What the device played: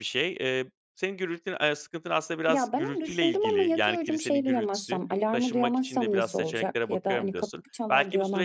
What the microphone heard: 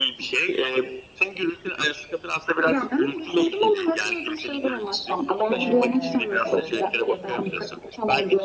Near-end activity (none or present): present